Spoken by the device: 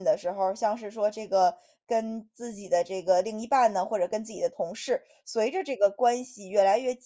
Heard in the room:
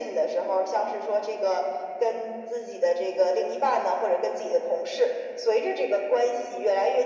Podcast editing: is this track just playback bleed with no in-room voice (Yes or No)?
Yes